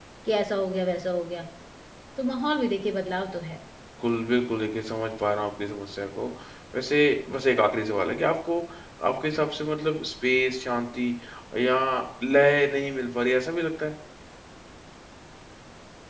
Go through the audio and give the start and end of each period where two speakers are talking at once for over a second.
none

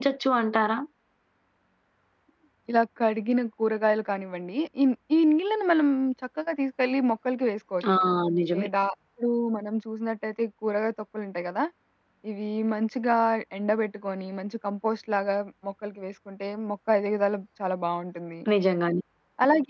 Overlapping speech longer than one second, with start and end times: none

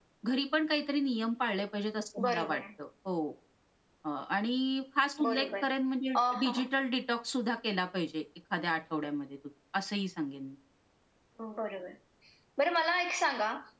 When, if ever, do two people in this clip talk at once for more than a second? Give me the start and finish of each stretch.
none

